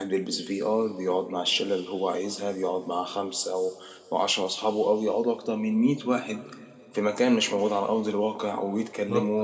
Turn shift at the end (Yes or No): Yes